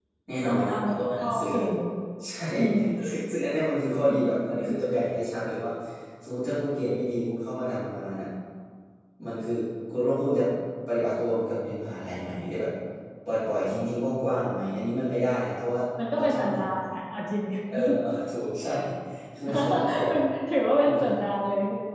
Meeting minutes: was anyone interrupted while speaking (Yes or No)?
Yes